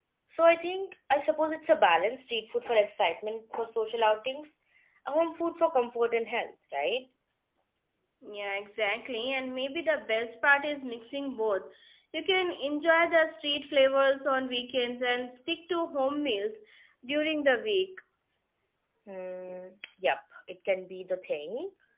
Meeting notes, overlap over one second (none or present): none